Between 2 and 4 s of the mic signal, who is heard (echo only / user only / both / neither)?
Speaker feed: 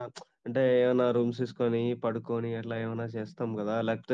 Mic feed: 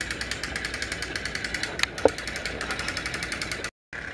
neither